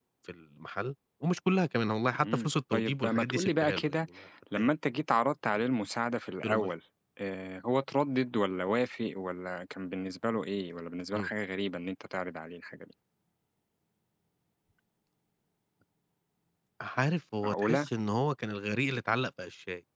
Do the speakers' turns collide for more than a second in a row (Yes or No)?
Yes